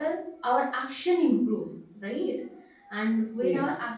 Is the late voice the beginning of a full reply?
No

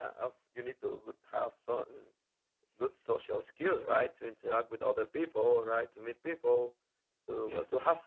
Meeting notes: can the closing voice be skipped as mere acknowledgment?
Yes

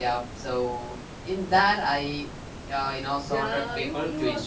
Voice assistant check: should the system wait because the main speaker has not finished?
No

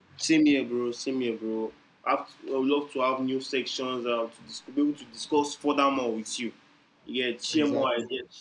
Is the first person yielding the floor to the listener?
No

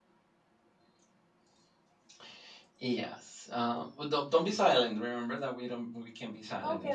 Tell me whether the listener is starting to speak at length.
Yes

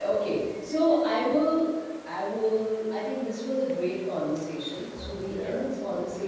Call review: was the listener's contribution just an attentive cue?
Yes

